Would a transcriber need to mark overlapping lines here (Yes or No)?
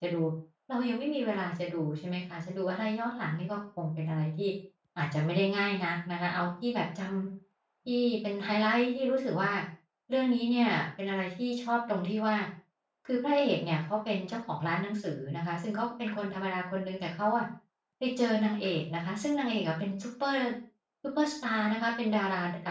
No